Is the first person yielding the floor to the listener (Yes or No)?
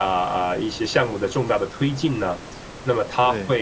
No